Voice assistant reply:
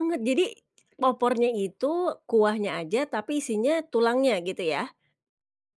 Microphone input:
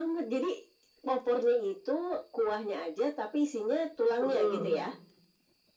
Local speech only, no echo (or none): Mhm.